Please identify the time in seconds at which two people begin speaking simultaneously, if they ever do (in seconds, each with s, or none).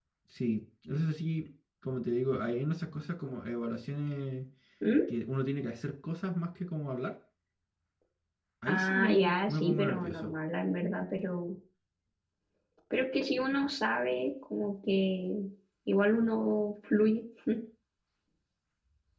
8.7 s